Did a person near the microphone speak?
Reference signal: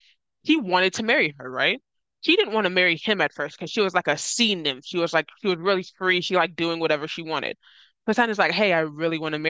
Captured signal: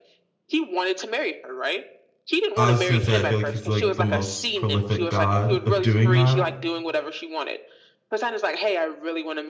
Yes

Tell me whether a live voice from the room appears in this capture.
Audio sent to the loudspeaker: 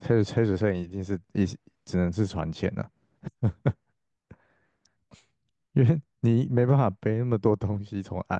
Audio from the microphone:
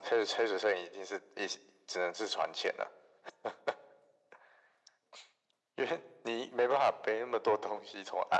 No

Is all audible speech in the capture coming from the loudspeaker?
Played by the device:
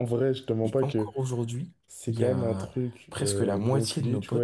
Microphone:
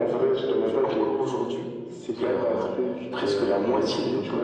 Yes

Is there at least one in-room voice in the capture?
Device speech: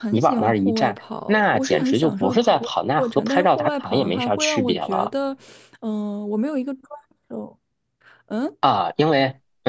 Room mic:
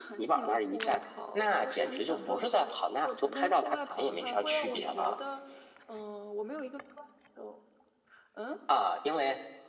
No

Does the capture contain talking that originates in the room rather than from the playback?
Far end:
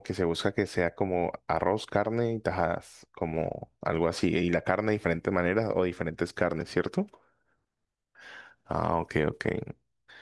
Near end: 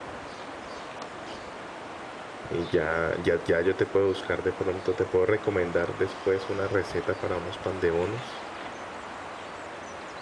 Yes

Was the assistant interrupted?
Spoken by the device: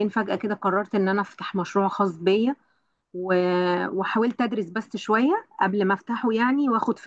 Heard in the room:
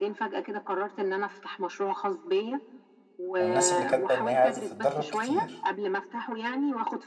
Yes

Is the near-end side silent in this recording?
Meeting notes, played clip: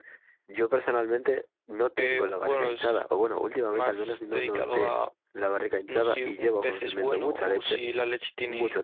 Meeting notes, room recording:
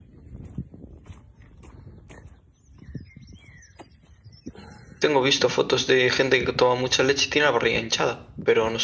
No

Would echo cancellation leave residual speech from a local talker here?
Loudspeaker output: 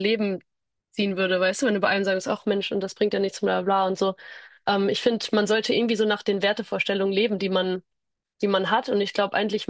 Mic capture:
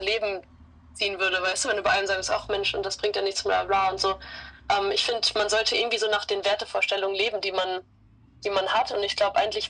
No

